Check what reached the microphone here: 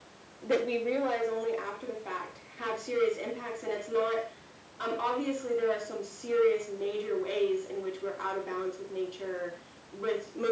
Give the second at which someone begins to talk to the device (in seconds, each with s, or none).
none